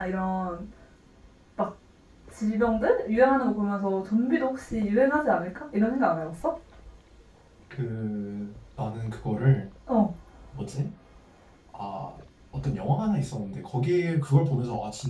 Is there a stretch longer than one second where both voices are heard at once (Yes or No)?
No